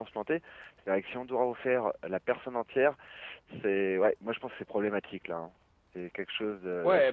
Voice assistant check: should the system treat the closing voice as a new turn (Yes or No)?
Yes